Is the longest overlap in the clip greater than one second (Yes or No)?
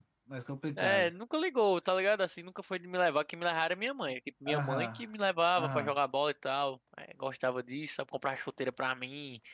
No